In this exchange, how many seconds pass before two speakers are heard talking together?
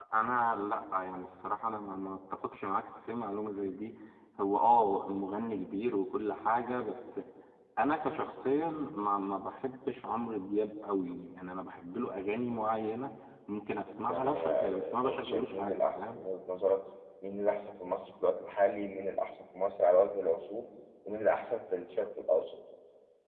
14 s

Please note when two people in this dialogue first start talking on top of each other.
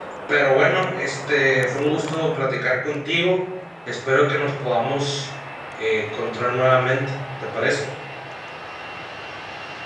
none

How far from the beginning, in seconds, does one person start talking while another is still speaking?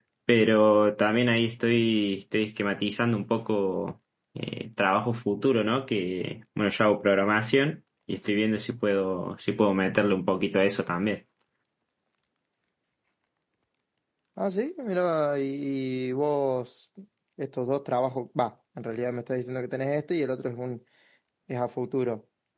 none

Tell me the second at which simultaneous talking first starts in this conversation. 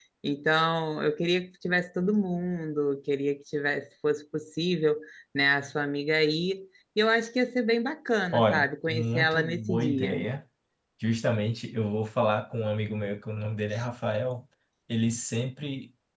8 s

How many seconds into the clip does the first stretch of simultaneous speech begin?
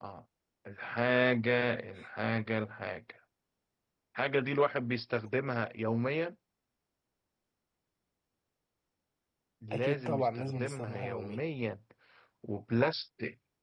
10 s

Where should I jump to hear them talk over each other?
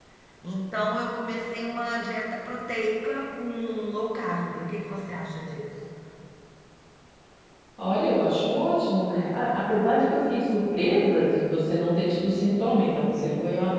none

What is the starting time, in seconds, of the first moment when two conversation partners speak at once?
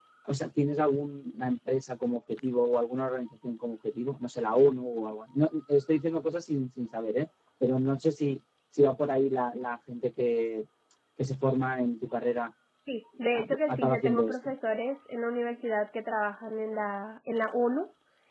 13 s

